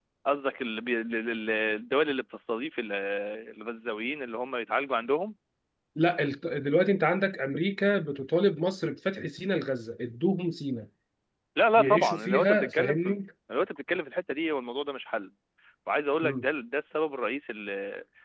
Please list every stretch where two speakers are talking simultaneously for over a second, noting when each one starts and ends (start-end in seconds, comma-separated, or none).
11.8-13.2